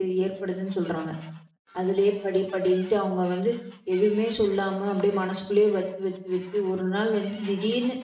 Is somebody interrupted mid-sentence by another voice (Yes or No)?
No